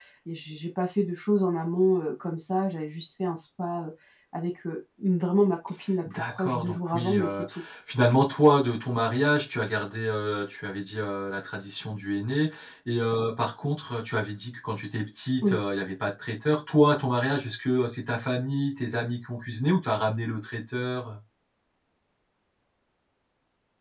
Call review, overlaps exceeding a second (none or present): present